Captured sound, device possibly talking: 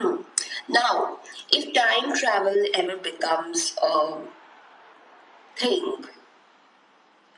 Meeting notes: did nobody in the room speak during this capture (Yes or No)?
Yes